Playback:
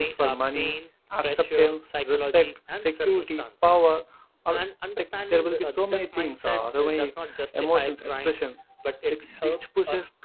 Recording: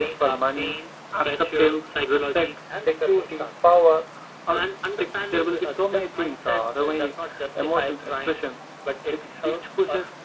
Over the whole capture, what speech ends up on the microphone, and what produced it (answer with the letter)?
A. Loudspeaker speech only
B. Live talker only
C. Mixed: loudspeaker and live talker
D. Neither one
A